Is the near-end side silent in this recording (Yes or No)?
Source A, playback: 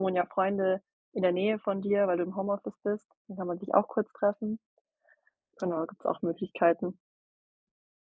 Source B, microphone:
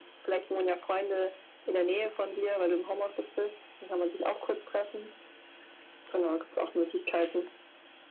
Yes